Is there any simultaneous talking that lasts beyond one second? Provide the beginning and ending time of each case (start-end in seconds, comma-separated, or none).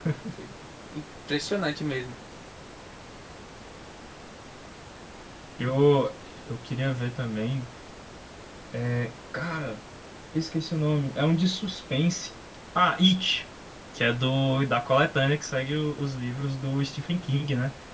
none